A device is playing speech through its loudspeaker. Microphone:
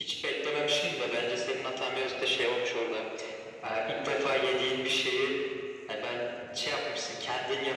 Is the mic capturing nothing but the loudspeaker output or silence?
Yes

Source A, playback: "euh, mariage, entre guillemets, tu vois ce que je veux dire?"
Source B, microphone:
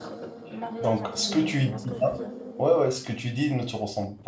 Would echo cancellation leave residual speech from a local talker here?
Yes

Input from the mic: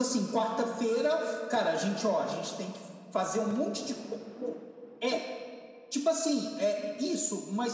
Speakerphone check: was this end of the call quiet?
Yes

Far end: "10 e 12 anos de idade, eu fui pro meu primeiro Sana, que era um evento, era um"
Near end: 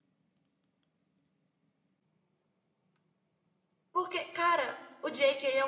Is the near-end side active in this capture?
Yes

